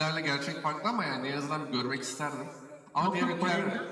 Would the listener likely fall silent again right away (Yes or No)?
No